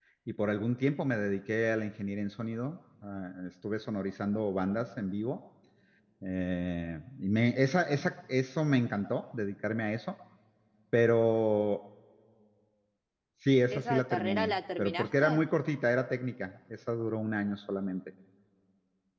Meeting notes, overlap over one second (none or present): present